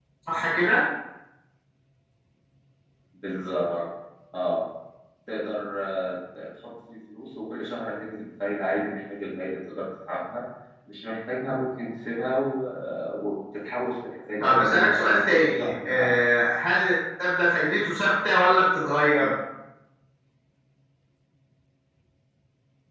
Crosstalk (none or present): present